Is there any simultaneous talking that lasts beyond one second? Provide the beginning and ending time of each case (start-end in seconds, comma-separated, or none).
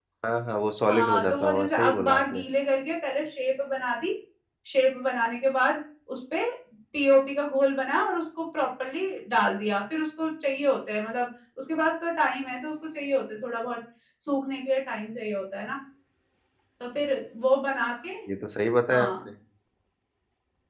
0.9-2.4